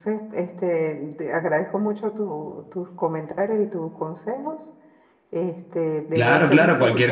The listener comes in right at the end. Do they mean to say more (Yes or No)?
Yes